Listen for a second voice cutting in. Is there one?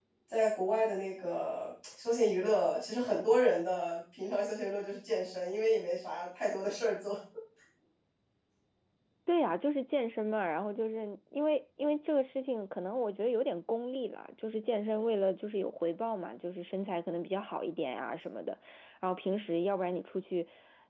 No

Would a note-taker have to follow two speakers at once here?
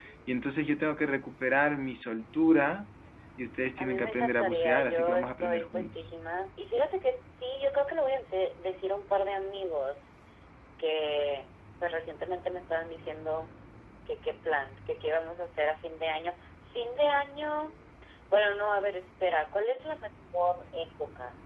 Yes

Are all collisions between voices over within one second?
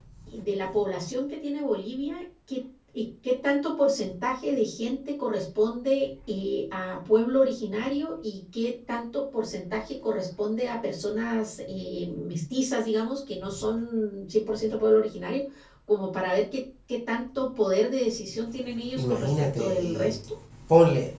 No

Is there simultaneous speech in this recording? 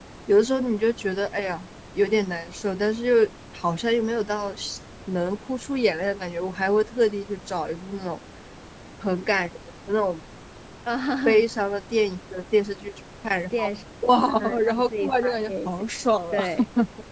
Yes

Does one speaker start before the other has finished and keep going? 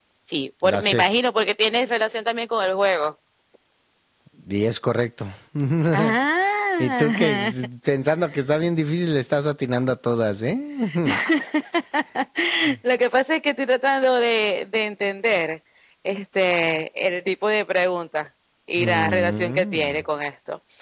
Yes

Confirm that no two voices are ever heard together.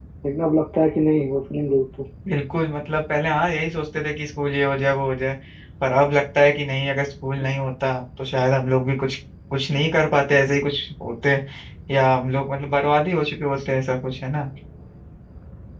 Yes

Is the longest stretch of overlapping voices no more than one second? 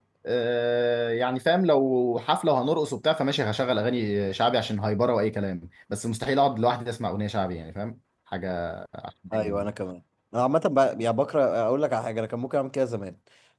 Yes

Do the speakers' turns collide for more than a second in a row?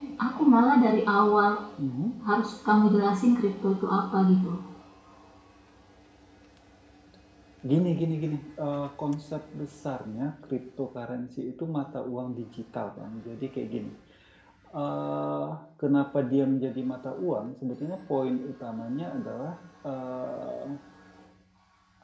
No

